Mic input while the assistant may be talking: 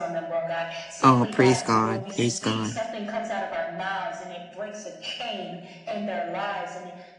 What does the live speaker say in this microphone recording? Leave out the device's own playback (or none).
Oh, praise God. Praise God.